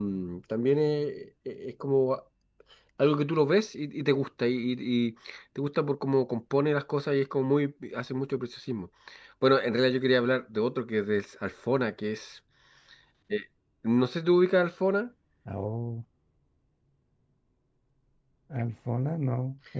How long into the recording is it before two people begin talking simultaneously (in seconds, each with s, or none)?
none